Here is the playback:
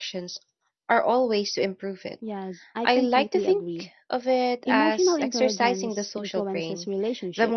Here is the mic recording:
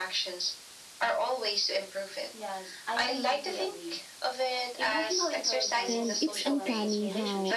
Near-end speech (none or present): present